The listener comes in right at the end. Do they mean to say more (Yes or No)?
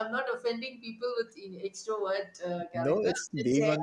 Yes